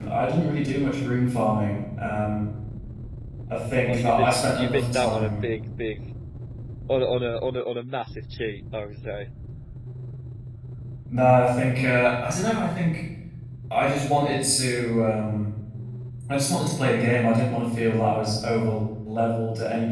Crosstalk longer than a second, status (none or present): present